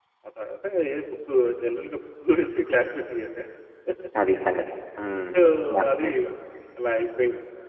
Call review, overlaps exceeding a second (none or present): none